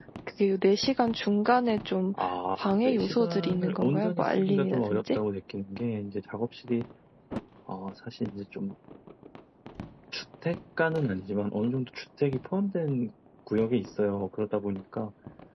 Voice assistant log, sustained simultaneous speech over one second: present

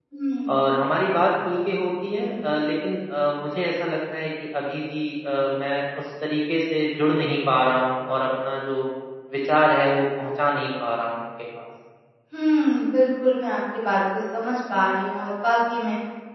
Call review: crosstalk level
none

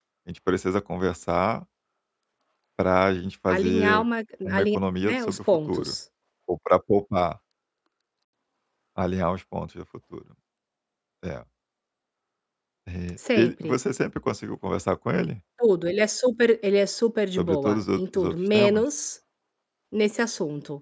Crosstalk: present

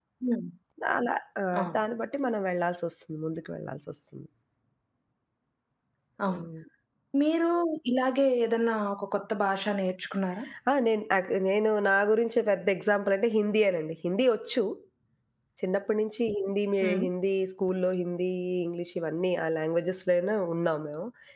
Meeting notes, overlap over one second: none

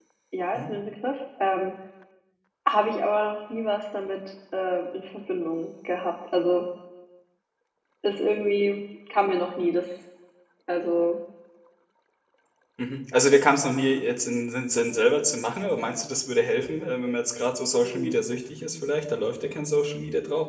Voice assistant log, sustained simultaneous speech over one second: none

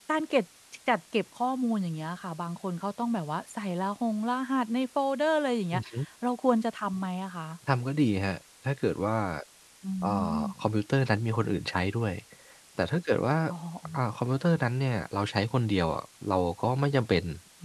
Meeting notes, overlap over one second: none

